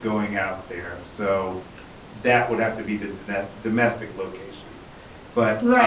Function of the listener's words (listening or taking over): taking over